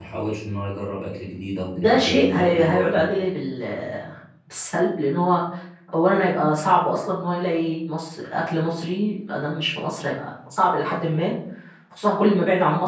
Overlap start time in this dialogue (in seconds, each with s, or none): 1.7 s